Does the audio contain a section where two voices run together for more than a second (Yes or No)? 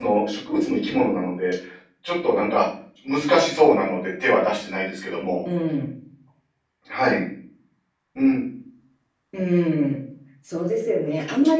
No